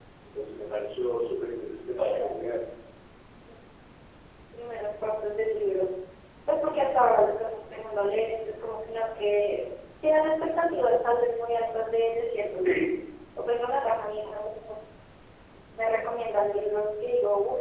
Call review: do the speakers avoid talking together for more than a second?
Yes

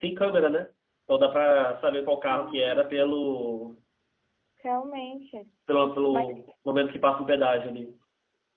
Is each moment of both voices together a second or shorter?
No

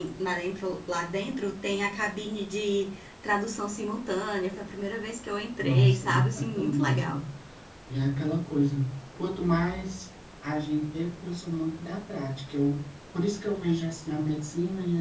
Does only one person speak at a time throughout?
No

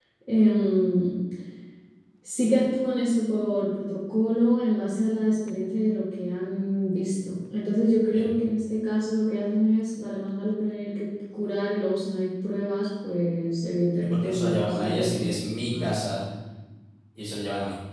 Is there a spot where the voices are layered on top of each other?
Yes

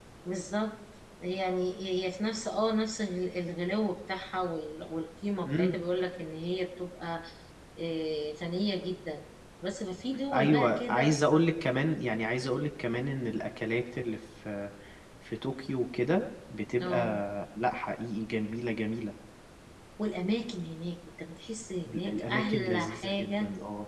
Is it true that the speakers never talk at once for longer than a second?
No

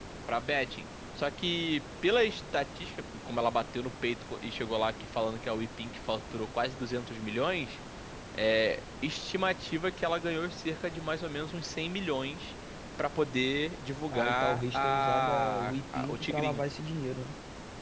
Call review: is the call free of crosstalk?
No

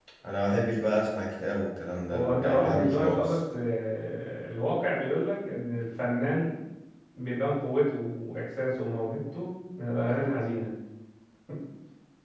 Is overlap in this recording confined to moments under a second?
No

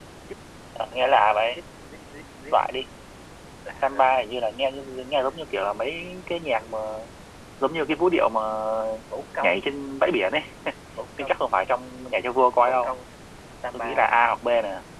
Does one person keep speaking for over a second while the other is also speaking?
No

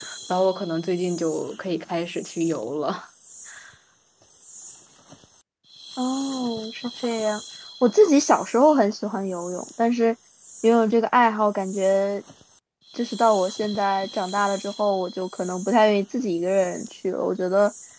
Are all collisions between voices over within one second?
Yes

